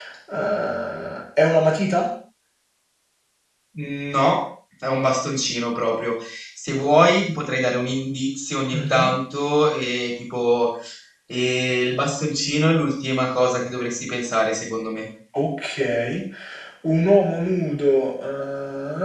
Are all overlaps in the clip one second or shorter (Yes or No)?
Yes